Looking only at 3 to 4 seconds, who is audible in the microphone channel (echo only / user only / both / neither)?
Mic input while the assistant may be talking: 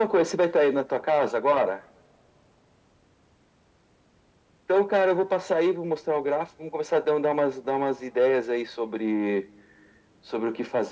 neither